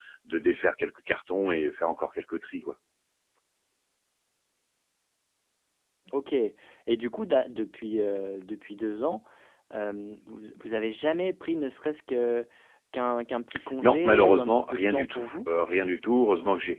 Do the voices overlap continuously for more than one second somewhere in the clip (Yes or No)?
Yes